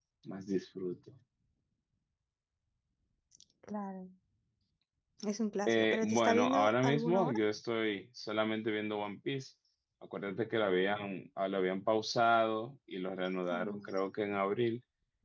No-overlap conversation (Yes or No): No